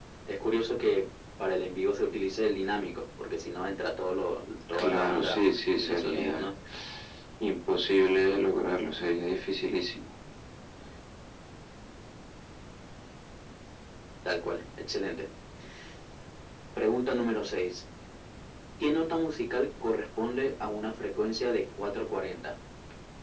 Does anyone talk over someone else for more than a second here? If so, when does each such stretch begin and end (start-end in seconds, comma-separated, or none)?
4.7-6.5